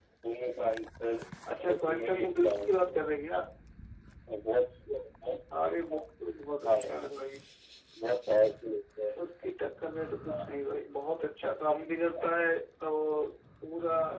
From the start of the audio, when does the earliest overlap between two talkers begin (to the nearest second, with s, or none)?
2 s